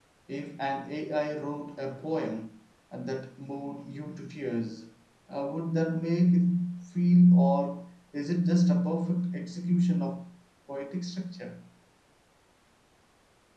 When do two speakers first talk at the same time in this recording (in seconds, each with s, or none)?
none